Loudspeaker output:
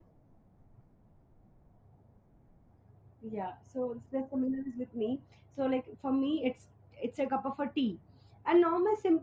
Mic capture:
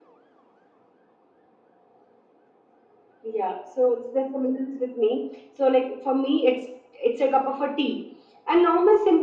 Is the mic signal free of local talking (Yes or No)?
Yes